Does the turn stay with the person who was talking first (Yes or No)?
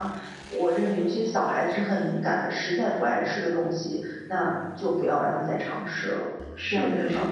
No